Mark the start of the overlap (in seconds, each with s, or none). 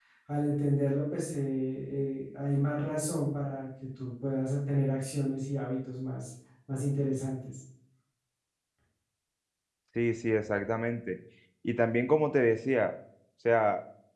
none